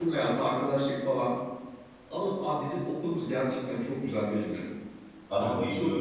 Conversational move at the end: listening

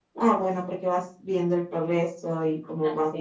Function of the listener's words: listening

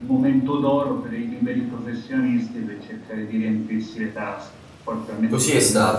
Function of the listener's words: taking over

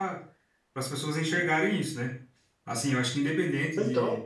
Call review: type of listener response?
listening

